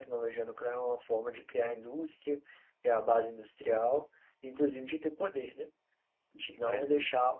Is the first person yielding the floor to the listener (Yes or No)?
No